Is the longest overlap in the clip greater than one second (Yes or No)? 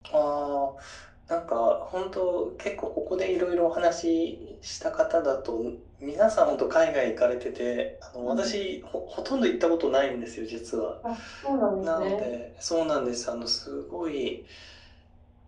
No